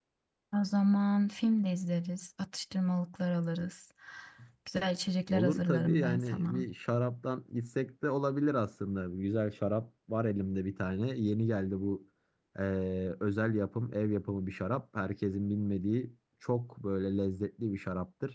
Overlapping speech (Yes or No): Yes